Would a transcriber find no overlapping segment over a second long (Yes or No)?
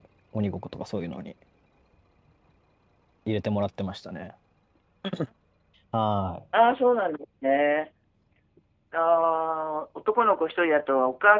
Yes